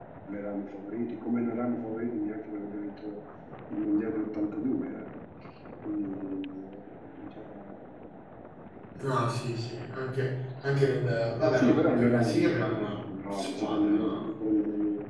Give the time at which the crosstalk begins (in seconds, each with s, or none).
11.5 s